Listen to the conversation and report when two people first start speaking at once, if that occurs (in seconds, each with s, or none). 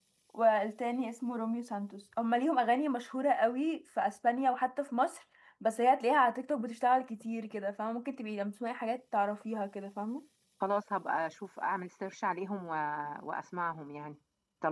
none